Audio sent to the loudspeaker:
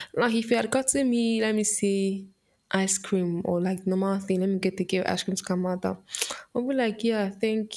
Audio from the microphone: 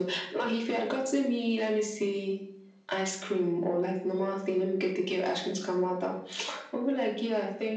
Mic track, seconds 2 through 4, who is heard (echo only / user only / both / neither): echo only